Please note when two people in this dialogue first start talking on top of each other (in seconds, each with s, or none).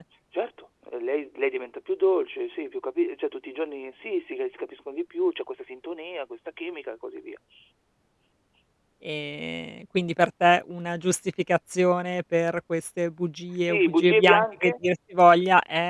13.5 s